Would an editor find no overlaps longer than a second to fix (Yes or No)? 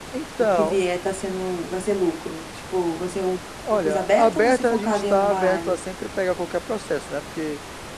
No